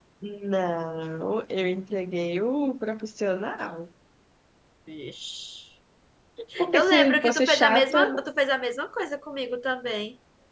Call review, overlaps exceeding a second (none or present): present